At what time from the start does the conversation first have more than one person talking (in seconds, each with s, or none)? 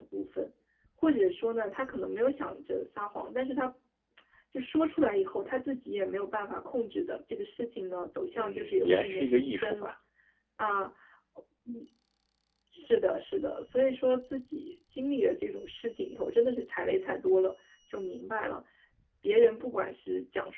8.3 s